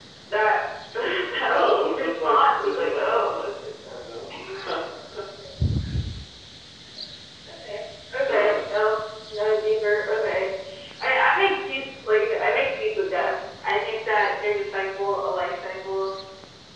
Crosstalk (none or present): present